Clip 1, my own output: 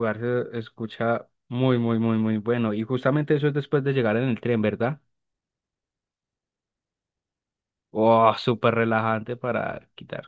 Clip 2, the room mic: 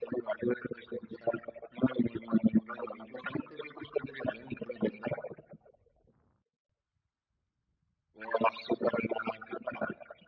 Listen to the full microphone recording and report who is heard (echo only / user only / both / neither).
echo only